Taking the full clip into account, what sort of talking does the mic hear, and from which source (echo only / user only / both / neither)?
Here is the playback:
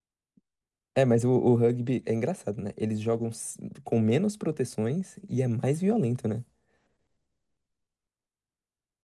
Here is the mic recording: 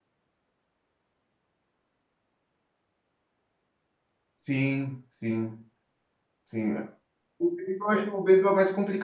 user only